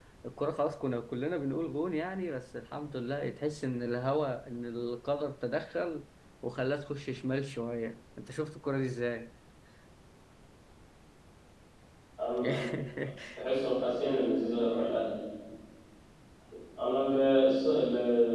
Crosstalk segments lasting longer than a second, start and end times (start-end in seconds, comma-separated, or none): none